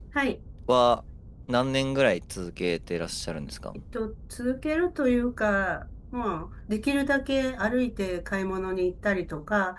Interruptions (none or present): none